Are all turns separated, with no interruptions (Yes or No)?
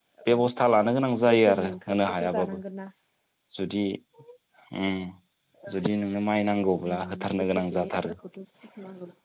No